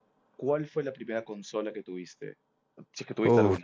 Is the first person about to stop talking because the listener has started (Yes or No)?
Yes